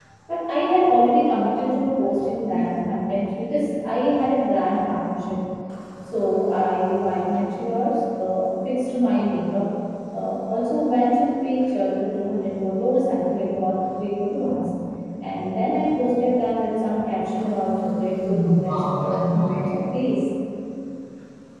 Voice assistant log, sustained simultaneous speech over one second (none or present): present